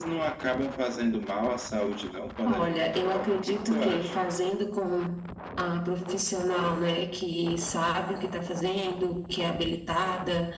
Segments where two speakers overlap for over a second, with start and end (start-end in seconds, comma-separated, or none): 2.4-4.2